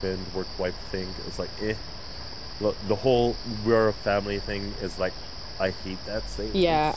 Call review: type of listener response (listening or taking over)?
taking over